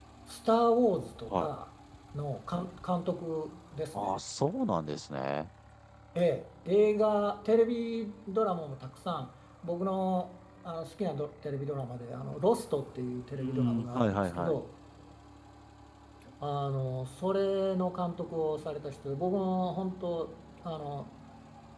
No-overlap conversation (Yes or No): No